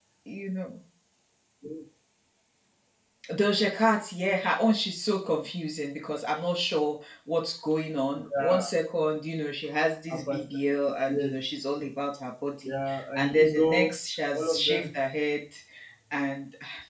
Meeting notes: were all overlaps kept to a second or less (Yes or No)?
No